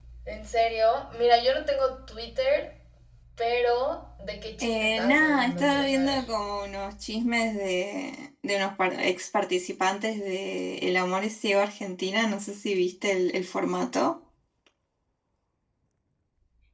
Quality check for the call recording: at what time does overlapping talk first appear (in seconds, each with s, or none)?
4.6 s